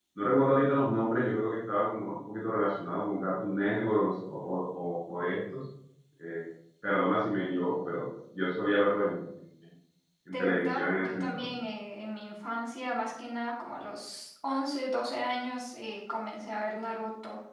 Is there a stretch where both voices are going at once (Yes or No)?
Yes